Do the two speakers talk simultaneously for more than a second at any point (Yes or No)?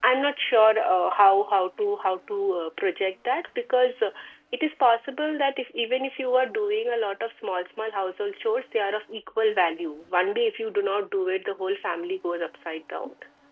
No